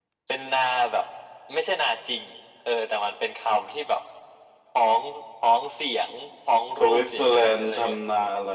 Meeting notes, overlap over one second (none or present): present